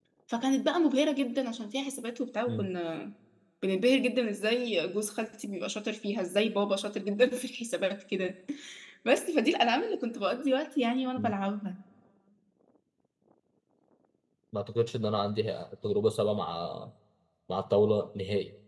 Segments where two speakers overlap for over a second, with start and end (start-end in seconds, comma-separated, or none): none